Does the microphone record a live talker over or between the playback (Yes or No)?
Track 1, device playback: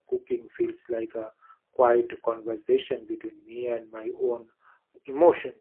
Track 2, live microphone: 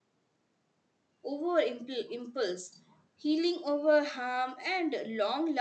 Yes